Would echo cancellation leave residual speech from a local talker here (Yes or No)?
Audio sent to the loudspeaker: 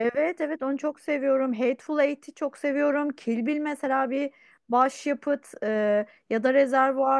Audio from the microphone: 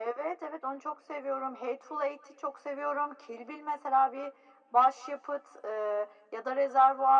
No